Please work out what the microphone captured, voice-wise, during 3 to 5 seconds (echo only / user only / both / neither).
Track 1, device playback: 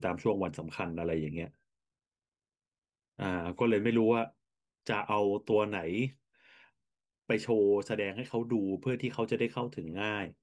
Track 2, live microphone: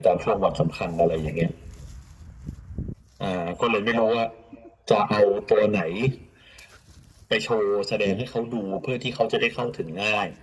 echo only